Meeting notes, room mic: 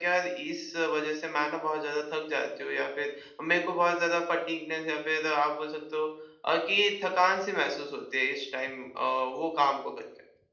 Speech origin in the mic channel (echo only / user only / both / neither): echo only